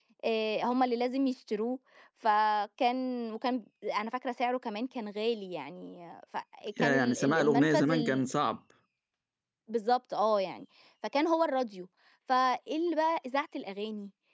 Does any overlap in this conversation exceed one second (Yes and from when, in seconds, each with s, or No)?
Yes, from 6.8 s